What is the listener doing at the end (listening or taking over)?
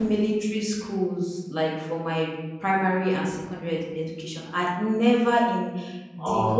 listening